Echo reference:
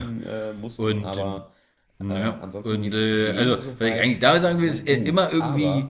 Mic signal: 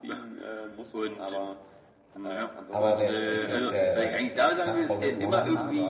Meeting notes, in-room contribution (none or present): present